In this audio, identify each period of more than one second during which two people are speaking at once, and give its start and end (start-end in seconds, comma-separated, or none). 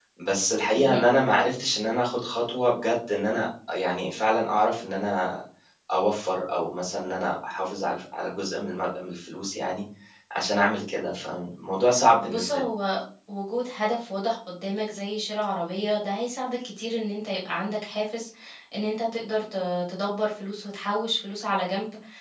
none